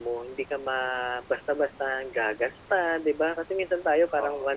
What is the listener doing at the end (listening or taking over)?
listening